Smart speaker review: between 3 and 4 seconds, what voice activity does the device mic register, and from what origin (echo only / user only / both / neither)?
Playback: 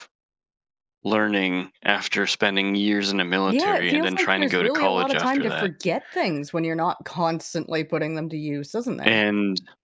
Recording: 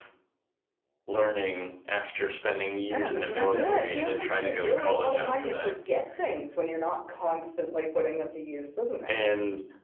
both